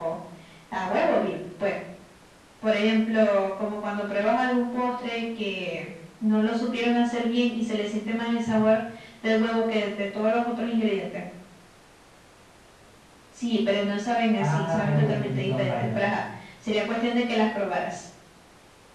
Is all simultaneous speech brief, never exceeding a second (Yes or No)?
No